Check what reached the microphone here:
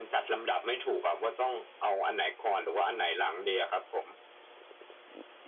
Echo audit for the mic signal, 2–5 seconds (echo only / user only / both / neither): echo only